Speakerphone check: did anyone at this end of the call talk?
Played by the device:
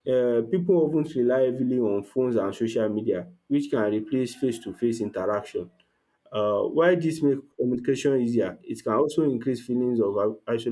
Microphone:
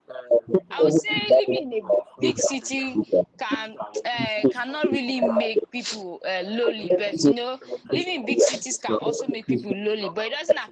Yes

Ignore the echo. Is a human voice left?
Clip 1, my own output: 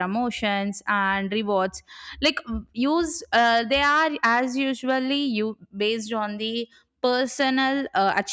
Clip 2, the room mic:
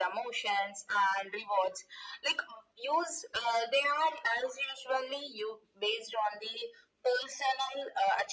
No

